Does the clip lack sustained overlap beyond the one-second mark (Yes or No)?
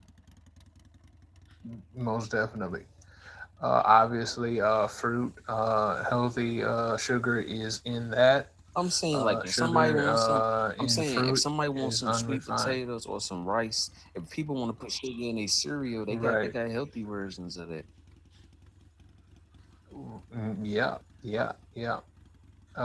No